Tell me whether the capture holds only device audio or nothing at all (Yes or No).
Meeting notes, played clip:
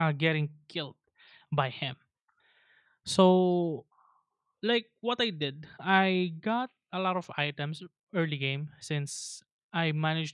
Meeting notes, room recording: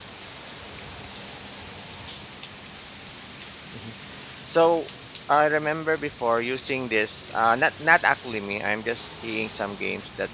No